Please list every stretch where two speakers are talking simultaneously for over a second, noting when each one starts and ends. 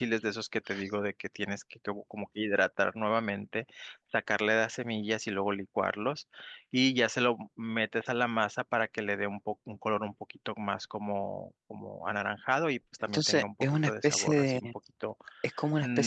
13.0-14.7

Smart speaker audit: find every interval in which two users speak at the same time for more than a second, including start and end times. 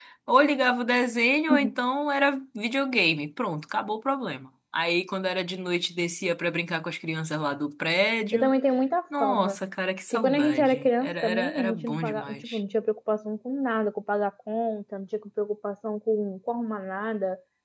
10.1-12.6

